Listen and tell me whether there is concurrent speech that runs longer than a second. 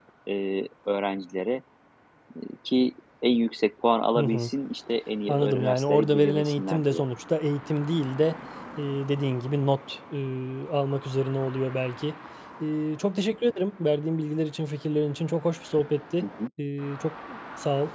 Yes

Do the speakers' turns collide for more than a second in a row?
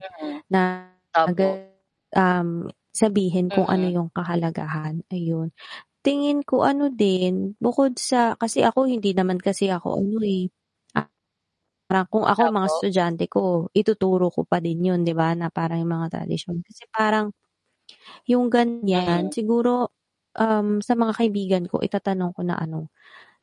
No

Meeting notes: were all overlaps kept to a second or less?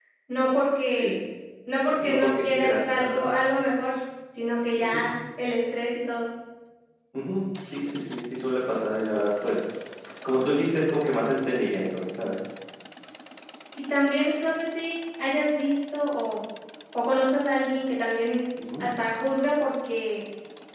No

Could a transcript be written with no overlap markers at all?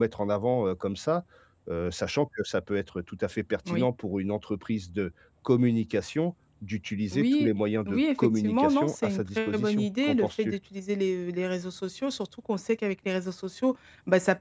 No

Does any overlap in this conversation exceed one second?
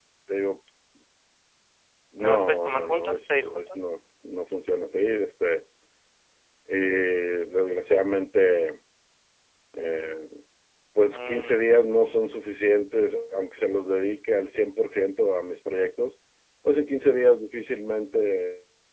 Yes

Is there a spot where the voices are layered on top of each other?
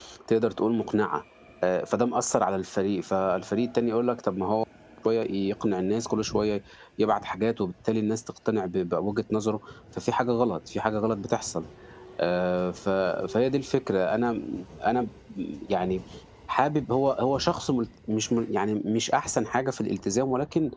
No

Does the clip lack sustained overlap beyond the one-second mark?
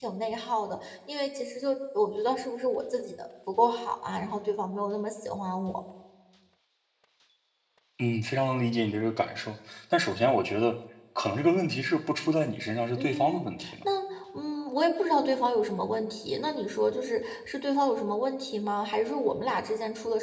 Yes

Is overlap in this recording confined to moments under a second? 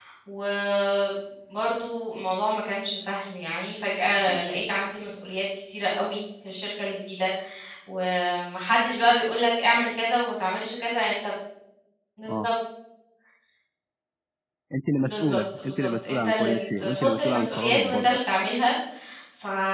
No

